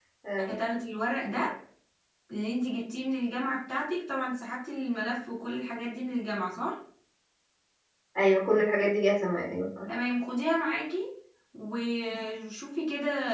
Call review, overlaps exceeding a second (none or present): none